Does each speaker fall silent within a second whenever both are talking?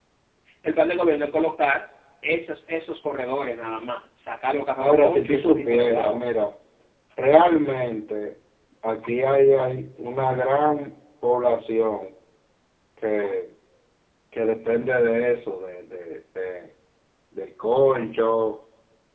No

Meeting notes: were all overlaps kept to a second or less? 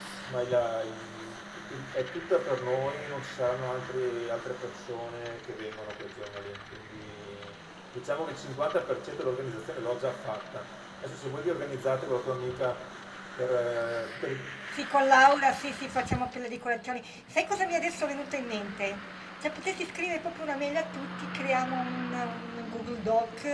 Yes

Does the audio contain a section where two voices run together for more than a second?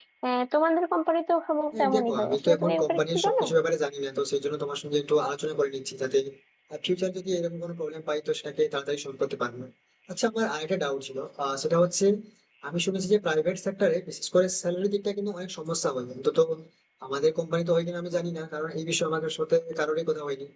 Yes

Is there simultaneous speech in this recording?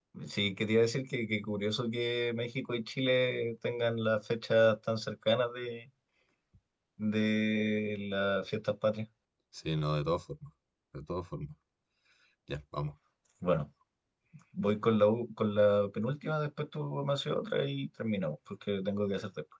No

